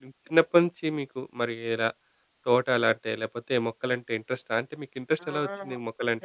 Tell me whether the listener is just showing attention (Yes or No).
No